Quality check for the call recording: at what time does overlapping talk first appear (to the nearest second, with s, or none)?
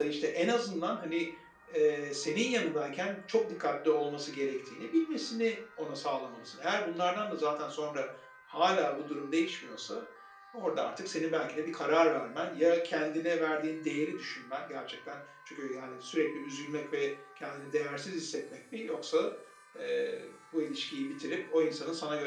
none